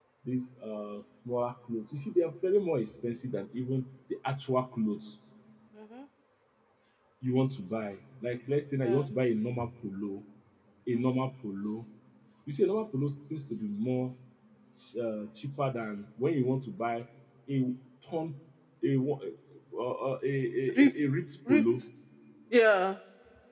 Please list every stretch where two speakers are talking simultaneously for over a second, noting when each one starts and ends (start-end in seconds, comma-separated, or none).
none